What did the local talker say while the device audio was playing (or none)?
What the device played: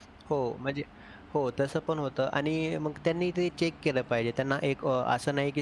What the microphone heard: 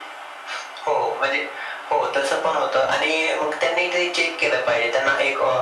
none